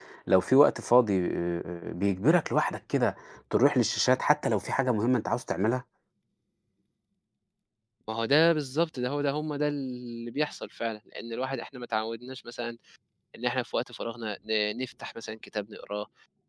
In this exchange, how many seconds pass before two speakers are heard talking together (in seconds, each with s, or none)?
none